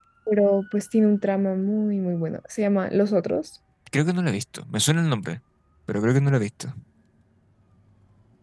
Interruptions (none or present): none